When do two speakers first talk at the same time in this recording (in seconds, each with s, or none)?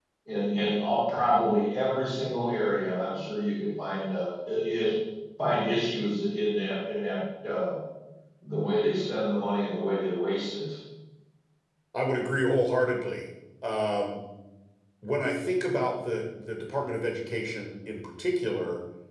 none